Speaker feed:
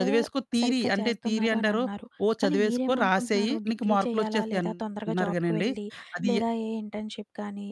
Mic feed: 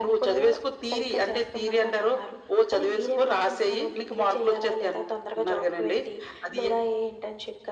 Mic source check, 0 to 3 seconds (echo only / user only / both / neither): echo only